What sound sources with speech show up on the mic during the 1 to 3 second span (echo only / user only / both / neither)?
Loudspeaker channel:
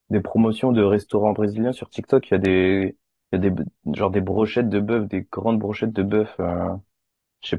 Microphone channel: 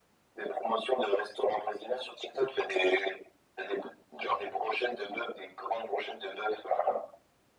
echo only